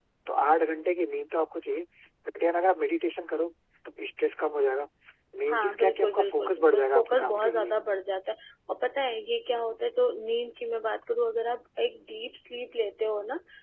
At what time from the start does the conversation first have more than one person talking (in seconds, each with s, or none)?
5.5 s